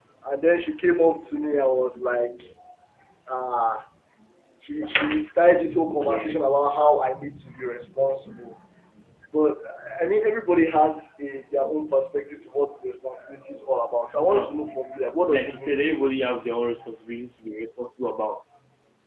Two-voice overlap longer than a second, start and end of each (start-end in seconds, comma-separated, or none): 15.3-16.7